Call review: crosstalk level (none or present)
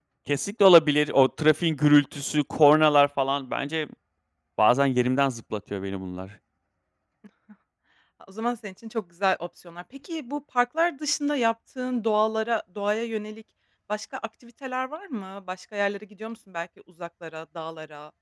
none